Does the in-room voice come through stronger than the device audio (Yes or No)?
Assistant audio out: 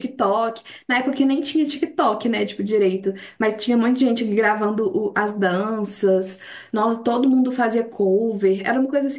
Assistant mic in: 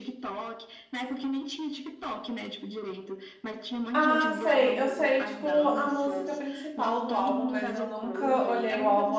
Yes